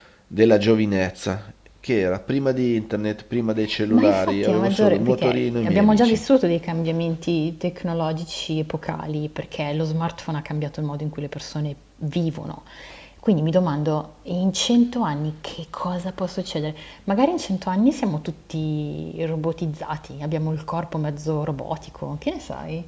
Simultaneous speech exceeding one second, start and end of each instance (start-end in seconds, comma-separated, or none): 3.9-6.2